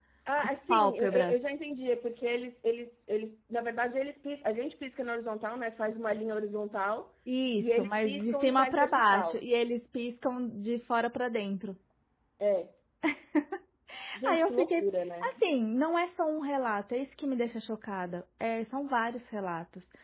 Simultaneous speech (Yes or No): Yes